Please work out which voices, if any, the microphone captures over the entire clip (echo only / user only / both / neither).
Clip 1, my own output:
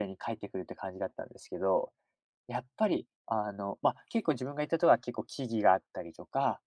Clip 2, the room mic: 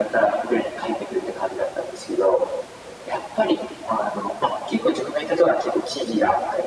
echo only